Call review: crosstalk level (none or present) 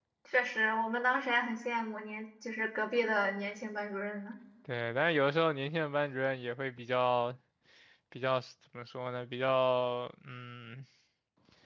none